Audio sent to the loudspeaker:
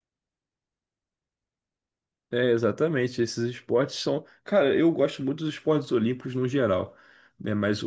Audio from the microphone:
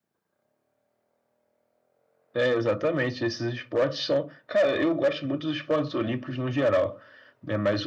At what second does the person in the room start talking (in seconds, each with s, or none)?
none